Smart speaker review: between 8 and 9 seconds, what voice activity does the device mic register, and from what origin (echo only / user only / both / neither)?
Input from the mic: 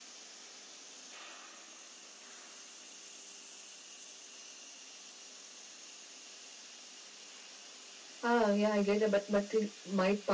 user only